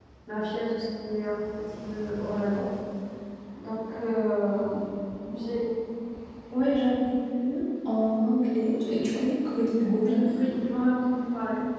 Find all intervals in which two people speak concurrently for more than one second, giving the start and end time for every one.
none

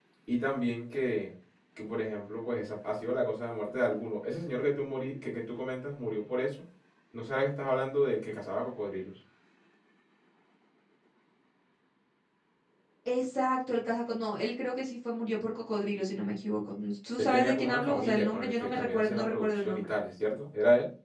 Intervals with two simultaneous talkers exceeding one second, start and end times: 17.2-19.9

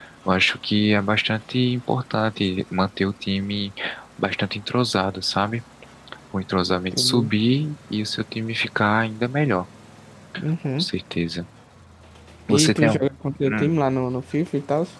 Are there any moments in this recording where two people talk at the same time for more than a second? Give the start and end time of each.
12.6-13.8

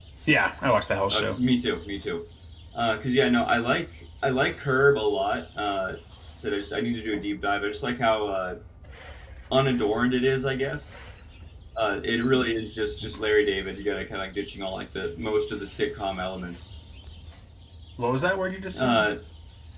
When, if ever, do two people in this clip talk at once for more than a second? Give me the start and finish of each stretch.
none

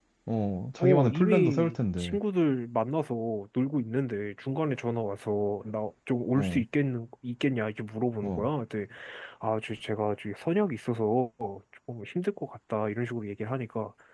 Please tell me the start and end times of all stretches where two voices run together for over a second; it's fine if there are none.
0.8-2.2

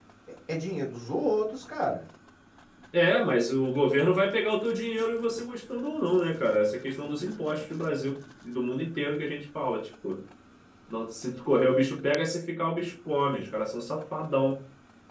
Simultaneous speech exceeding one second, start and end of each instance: none

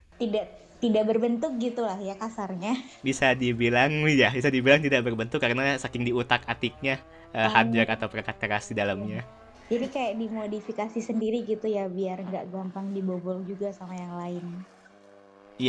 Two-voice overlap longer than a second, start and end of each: none

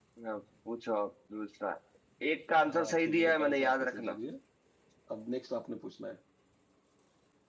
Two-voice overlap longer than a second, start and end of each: 2.7-4.2

